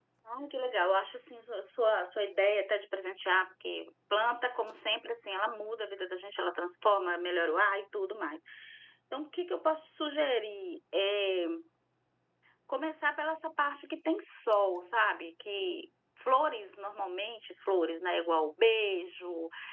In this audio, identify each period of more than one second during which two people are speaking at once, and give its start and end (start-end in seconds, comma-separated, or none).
none